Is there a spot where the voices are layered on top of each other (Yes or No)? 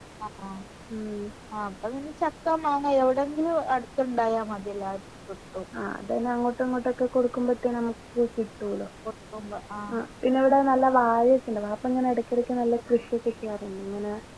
No